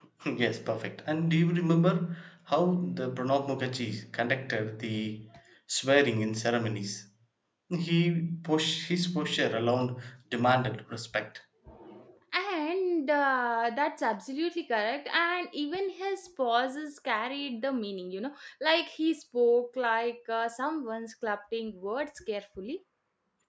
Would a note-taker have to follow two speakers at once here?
No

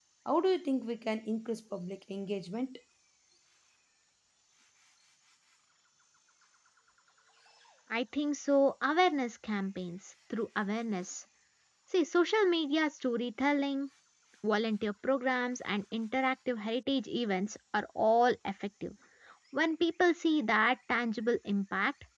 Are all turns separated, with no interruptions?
Yes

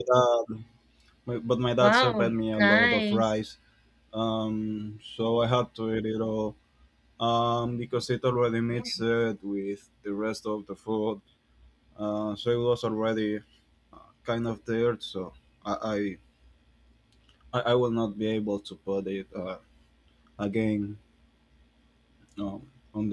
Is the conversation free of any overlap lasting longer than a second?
No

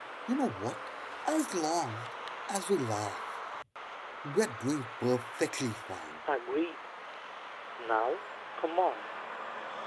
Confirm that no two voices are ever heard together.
Yes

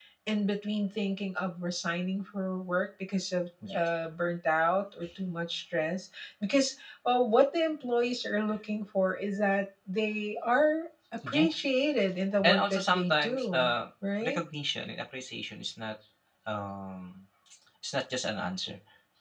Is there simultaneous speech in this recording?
Yes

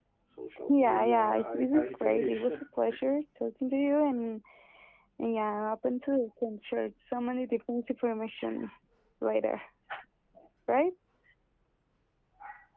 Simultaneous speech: Yes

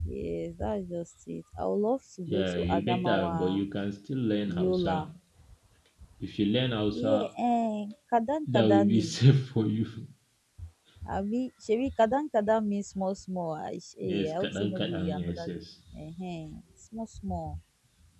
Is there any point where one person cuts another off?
Yes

